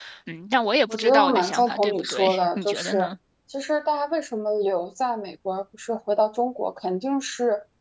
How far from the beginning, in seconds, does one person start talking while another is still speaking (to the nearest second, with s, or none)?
1 s